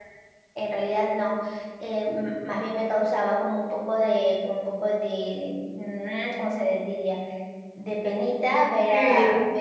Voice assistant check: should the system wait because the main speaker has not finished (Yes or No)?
Yes